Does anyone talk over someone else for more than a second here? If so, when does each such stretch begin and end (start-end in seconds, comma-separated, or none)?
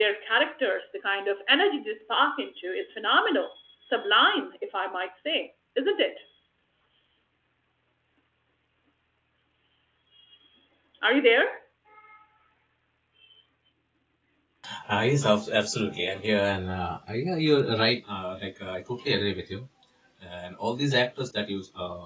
none